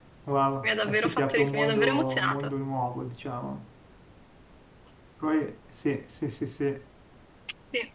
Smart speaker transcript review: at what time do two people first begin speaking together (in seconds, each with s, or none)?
0.6 s